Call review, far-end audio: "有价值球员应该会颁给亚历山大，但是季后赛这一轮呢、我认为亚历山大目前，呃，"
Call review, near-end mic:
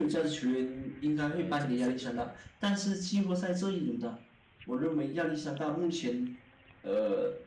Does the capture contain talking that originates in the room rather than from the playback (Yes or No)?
Yes